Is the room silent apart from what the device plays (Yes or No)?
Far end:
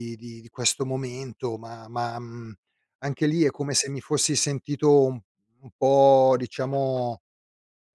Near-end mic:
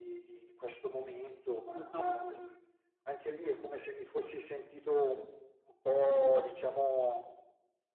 No